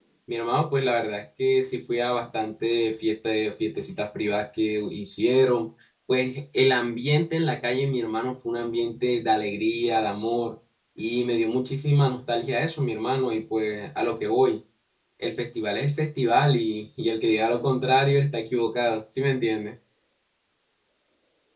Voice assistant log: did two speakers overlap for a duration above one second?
No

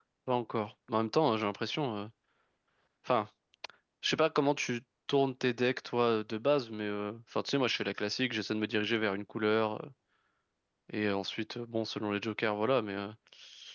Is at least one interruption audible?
No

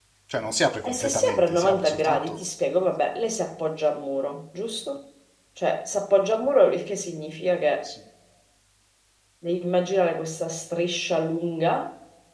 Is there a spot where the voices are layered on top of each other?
Yes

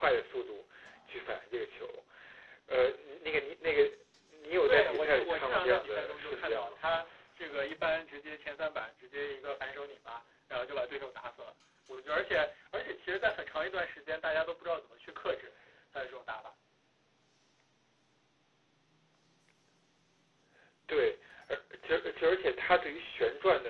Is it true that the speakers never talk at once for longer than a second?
No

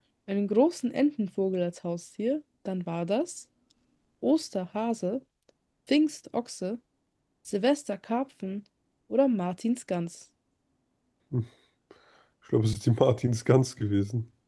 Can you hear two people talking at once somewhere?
No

